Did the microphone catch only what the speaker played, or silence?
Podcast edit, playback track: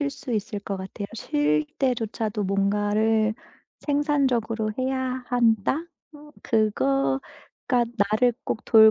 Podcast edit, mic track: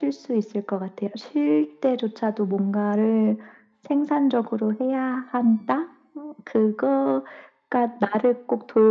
Yes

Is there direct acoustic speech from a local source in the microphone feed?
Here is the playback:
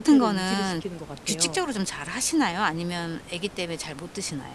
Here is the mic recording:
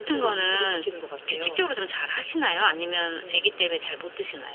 Yes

